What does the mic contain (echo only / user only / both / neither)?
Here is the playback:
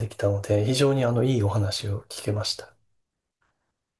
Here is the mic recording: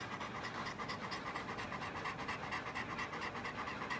neither